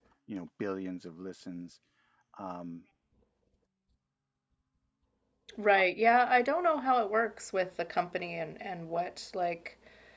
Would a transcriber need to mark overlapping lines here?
No

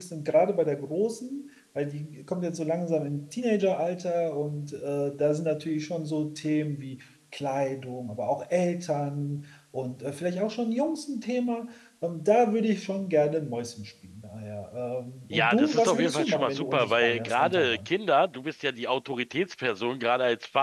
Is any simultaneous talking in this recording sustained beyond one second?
Yes, from 15.3 s

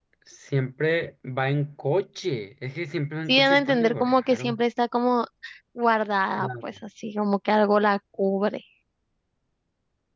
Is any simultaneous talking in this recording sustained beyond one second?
Yes, from 3.3 s

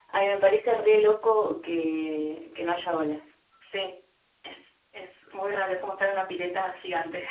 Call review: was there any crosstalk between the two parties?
No

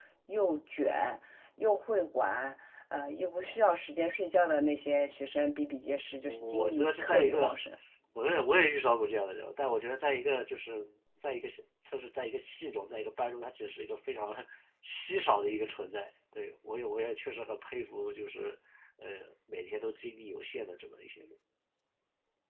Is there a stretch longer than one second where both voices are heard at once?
Yes, from 6.2 s

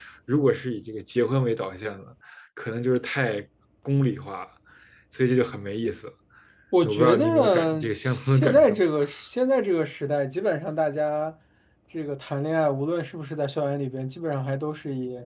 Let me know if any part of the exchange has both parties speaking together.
Yes, from 6.8 s

